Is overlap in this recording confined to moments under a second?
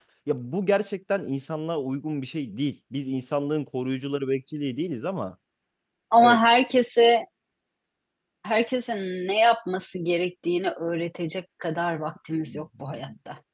Yes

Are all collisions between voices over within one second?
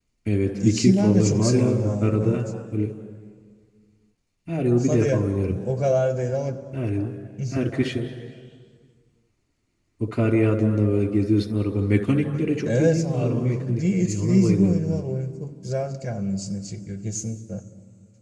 No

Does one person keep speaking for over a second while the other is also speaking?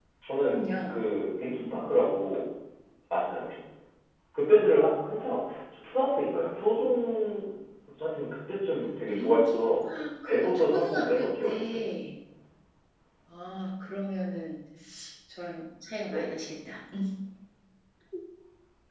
Yes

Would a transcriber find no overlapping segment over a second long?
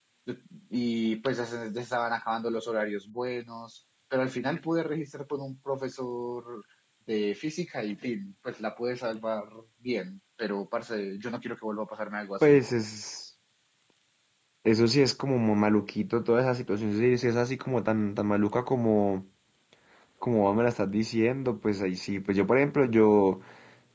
Yes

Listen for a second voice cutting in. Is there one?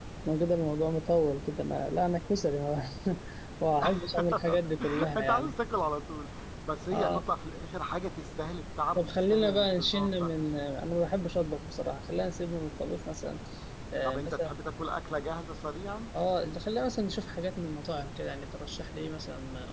Yes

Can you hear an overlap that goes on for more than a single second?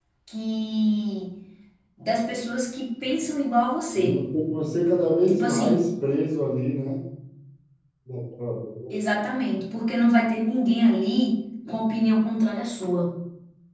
No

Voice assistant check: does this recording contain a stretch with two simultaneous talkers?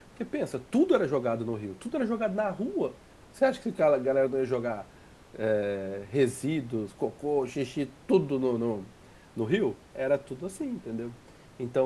No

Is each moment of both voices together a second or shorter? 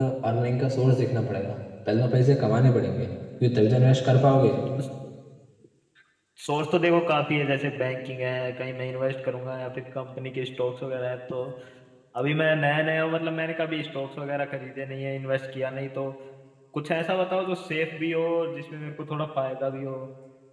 Yes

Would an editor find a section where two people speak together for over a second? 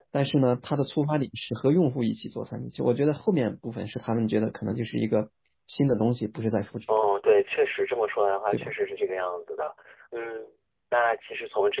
No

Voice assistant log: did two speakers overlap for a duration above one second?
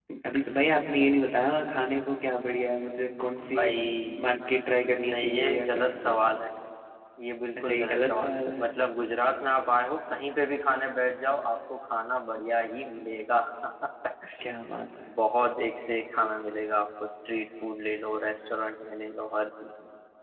Yes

